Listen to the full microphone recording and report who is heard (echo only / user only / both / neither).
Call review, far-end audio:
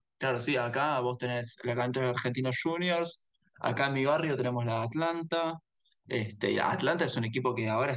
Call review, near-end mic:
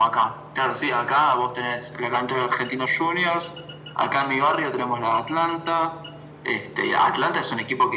echo only